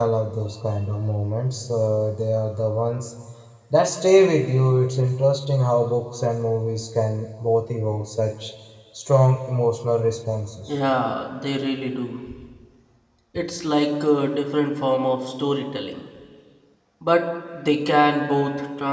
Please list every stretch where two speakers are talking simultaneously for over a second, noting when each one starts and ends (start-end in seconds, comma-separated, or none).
none